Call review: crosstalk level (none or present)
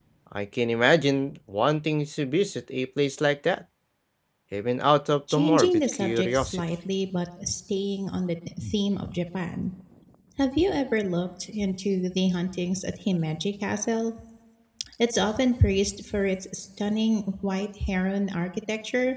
present